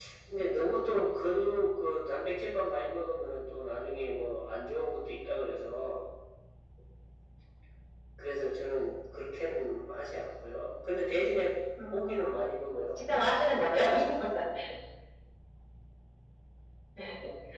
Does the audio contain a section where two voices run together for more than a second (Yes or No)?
No